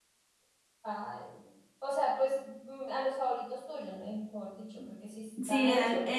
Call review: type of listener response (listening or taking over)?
taking over